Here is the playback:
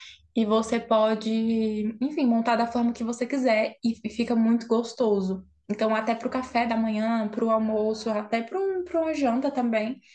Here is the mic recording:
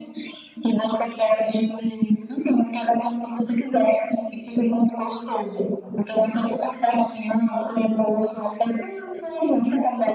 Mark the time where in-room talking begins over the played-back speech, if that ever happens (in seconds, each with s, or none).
none